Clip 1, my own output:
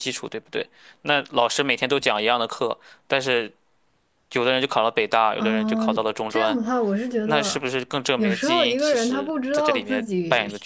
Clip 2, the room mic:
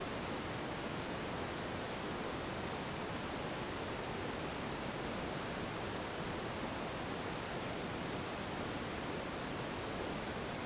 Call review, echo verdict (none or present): none